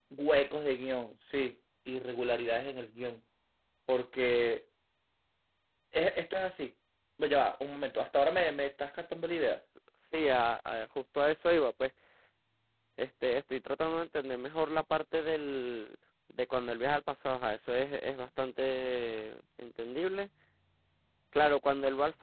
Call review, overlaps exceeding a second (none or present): none